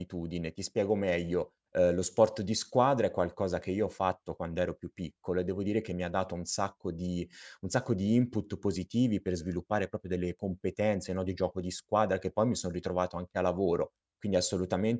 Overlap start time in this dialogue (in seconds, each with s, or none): none